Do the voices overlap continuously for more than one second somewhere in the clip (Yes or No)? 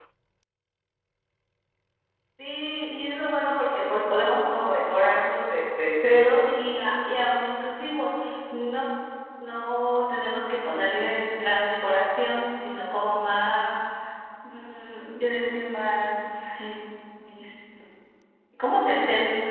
No